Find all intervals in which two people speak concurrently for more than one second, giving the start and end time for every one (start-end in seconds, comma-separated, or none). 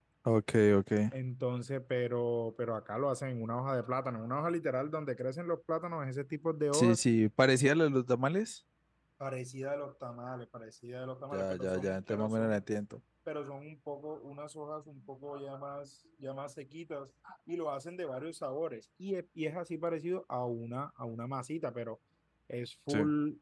11.3-12.6